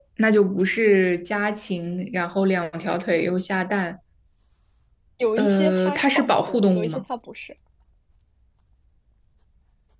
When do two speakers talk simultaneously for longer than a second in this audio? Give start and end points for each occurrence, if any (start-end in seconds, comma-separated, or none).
5.4-7.0